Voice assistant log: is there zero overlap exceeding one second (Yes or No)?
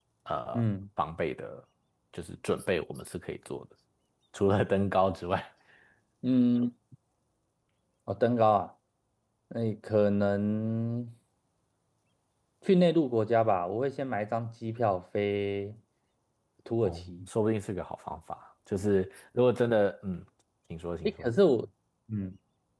Yes